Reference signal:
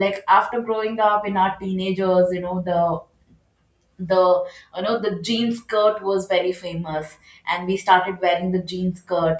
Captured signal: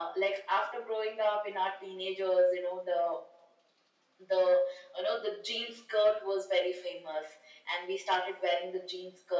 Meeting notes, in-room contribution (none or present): none